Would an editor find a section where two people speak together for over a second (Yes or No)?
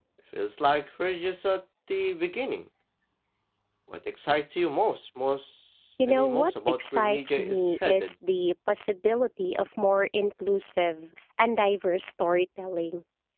Yes